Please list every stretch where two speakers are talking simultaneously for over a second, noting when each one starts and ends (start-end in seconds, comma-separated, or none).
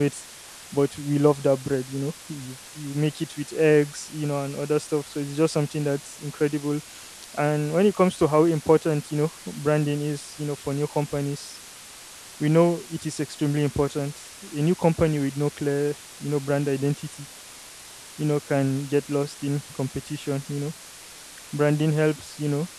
none